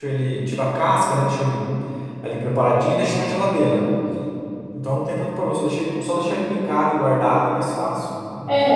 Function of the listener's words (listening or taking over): taking over